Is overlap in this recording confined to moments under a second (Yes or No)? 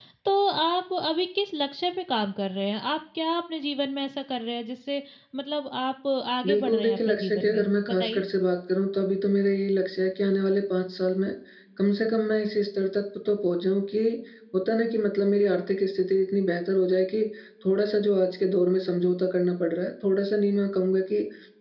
No